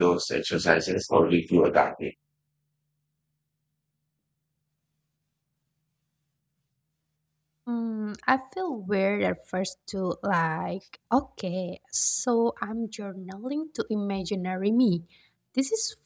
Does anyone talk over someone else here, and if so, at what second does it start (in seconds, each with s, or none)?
none